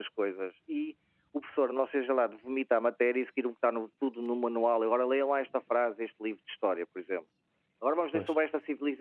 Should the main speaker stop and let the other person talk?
No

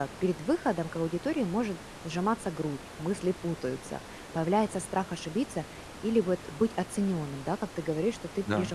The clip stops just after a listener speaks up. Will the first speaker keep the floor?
Yes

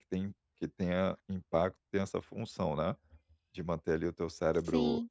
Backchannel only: Yes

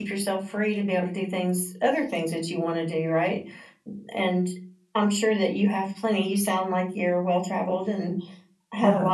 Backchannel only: Yes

